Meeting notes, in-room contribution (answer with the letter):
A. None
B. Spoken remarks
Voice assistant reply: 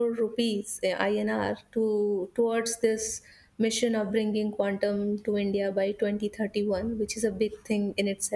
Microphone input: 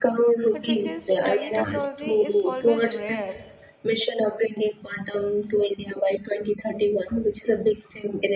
B